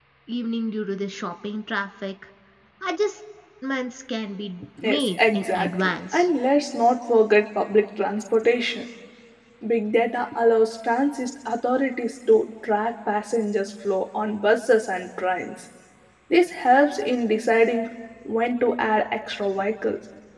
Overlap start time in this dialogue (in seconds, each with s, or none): 4.8 s